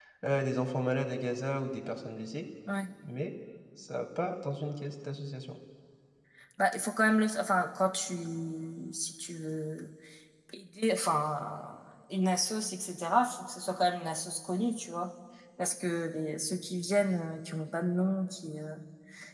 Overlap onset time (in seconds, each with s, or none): none